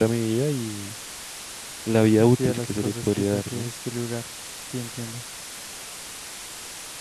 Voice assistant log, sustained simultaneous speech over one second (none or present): present